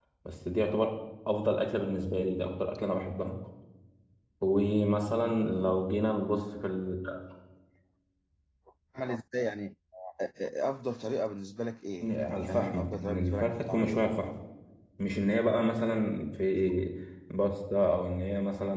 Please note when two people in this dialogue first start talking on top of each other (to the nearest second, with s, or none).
12 s